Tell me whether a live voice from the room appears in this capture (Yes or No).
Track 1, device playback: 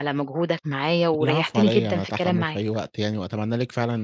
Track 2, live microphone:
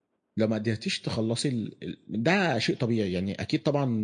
Yes